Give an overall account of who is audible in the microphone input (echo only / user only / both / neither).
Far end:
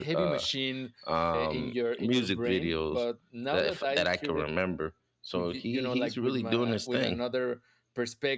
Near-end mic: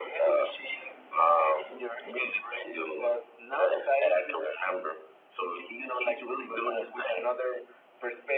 echo only